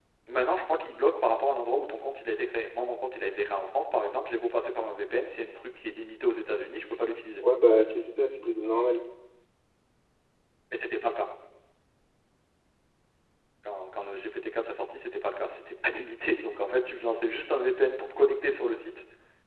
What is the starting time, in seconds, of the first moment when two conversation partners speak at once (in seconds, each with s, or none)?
none